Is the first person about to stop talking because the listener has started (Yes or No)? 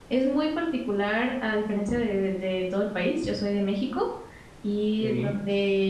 No